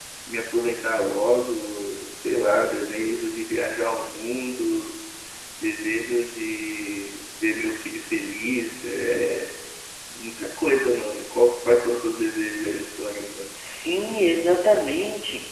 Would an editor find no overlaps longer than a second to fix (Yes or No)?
Yes